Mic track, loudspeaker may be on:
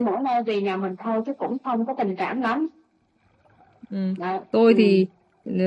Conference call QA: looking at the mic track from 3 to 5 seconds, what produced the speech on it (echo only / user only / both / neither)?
both